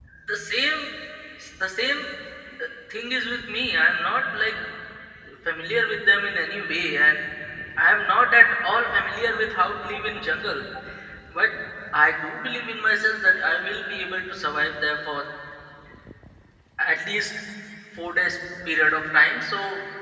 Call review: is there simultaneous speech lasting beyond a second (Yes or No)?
No